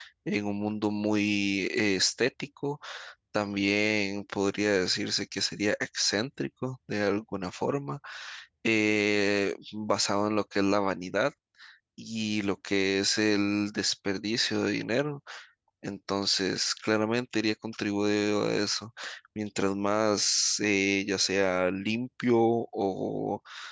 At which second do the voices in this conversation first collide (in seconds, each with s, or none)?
none